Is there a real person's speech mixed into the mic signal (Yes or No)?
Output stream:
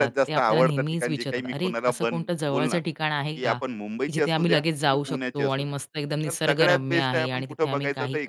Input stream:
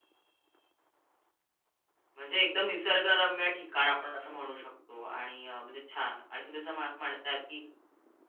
Yes